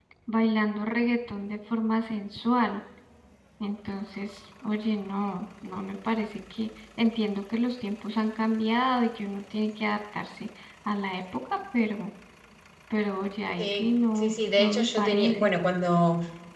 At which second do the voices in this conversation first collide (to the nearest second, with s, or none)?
14 s